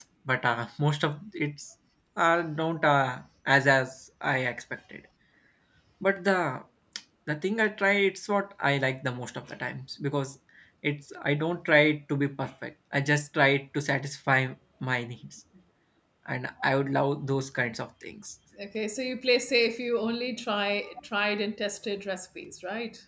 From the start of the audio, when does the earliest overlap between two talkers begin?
none

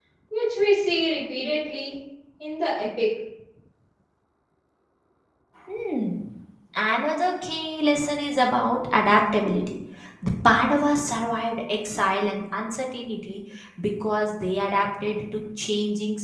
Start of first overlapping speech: none

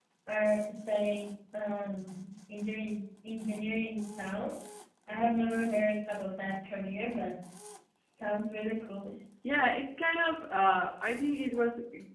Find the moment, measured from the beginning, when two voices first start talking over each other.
none

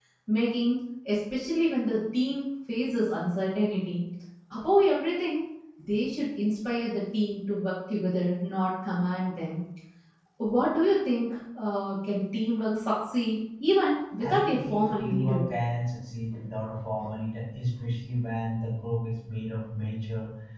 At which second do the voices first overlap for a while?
14.2 s

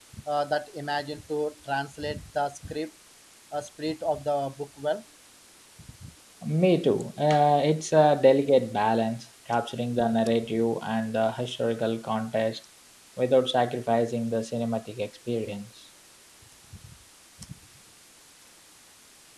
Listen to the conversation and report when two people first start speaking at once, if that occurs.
none

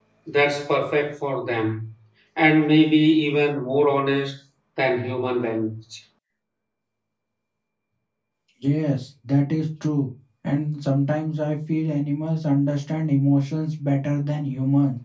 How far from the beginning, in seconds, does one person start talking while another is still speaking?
none

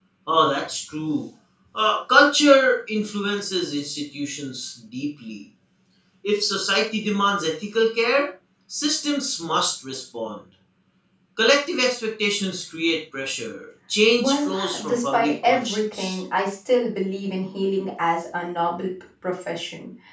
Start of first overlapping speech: 14.2 s

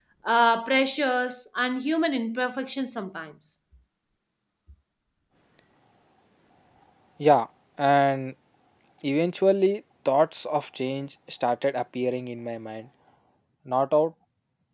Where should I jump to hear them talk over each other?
none

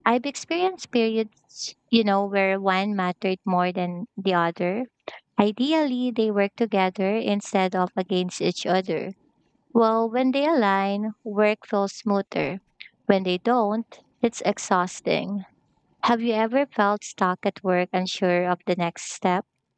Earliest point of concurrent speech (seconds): none

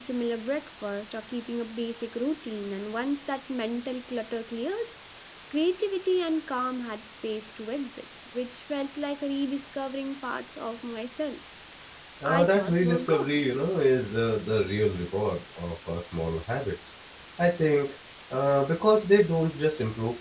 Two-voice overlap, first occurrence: 12.2 s

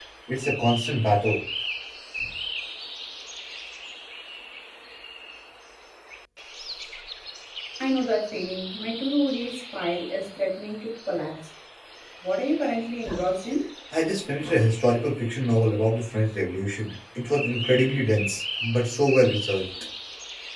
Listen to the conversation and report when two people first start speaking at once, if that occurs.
none

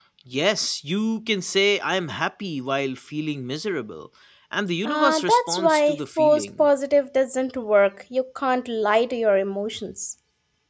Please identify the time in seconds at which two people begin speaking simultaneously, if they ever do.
4.8 s

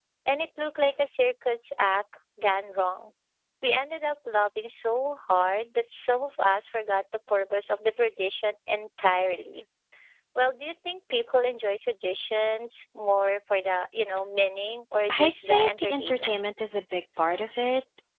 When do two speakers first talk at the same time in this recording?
15.1 s

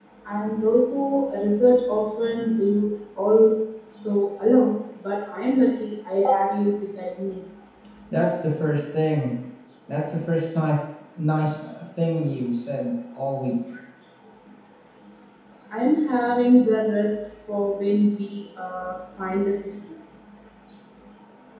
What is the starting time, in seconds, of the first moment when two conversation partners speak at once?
none

